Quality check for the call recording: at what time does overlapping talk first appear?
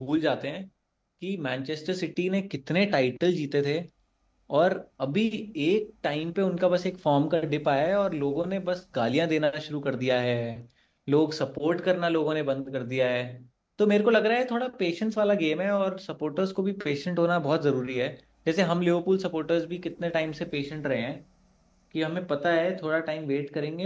none

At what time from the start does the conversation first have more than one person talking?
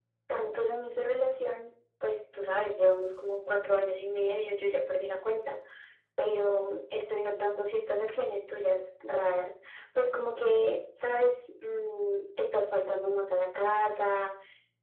none

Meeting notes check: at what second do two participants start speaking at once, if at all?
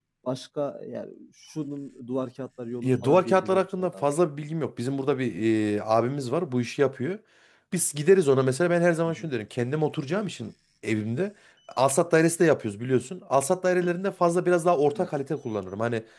2.8 s

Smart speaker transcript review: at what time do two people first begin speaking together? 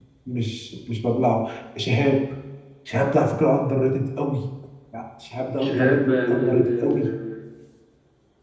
5.6 s

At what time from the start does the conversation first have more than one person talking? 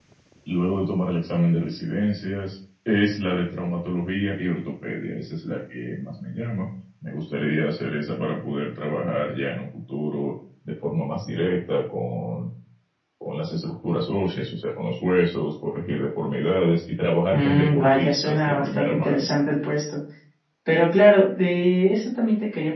17.3 s

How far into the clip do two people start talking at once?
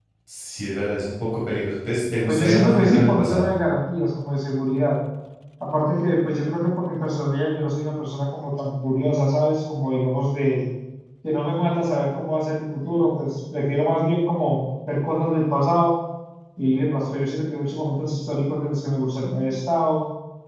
2.3 s

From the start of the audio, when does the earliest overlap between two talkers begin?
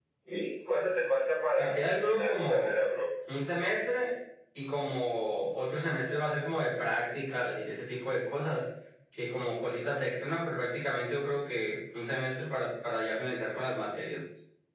1.6 s

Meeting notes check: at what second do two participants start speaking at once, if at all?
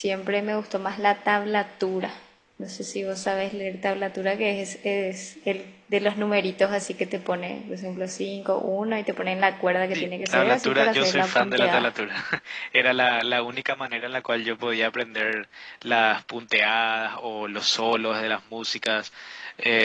9.9 s

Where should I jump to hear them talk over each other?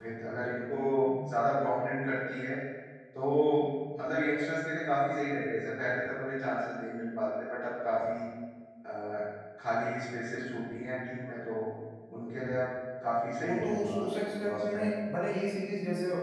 13.4 s

